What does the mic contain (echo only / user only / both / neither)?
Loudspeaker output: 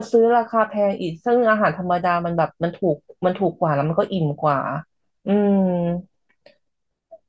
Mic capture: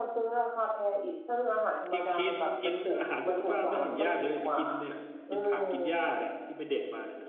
both